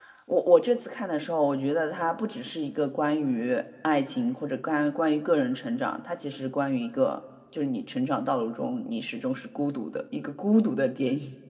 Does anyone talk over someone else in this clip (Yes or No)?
No